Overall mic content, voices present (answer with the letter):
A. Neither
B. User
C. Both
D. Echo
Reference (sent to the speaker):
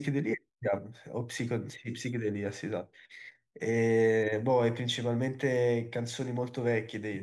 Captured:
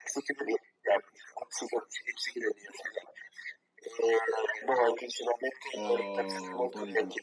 C